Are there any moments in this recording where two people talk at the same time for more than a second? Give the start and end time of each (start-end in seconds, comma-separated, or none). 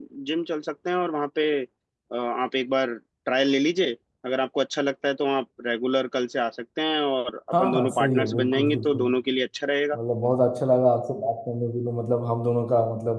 7.5-9.0